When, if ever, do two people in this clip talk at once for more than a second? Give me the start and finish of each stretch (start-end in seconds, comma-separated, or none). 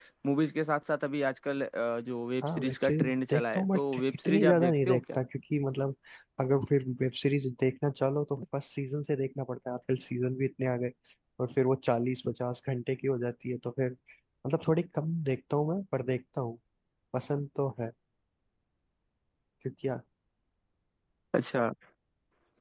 2.4-5.0